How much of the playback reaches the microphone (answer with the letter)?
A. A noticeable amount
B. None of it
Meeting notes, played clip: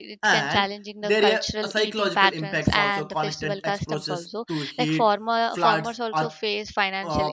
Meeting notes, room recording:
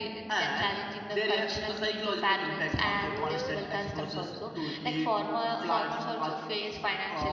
A